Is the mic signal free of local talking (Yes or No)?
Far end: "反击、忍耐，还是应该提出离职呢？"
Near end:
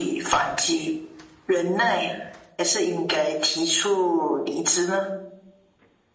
Yes